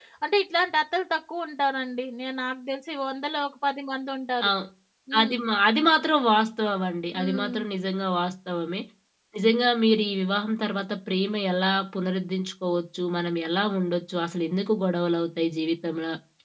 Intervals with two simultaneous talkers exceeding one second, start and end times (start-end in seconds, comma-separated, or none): none